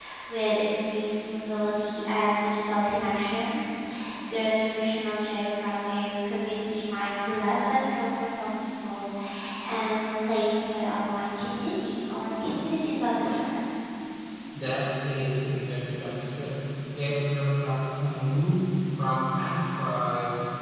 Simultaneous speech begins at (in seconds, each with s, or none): none